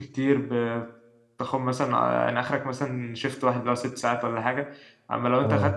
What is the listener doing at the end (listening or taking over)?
listening